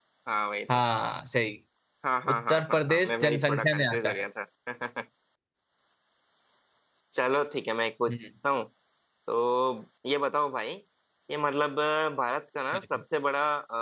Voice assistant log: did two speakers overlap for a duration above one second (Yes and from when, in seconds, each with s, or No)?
Yes, from 2.3 s